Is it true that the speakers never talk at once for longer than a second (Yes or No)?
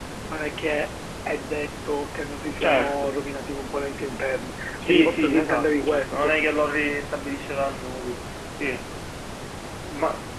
No